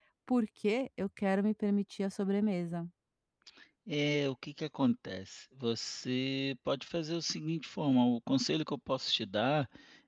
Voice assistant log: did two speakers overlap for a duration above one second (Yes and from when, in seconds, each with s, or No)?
No